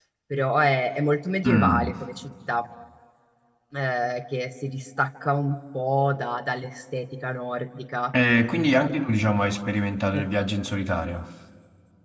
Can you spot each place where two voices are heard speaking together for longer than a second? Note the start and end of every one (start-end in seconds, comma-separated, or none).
none